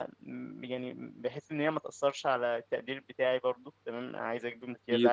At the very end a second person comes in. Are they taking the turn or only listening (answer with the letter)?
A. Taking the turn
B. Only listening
B